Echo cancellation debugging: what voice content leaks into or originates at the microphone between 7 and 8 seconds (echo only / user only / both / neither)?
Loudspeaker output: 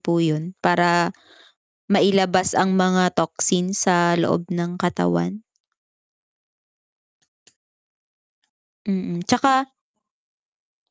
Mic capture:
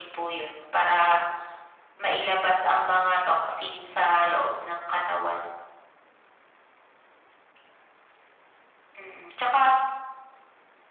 neither